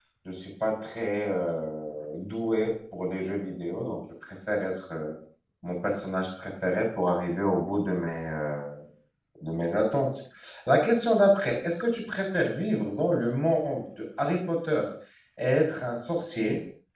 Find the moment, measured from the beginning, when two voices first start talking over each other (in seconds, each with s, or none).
none